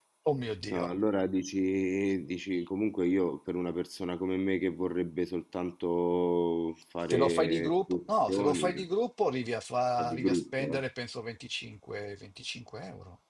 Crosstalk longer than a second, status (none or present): present